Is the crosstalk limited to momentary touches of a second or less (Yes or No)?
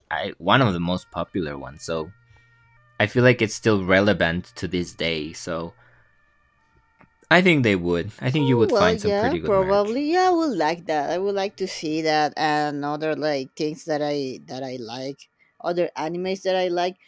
No